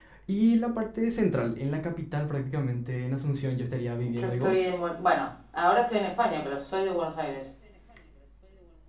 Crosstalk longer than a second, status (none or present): none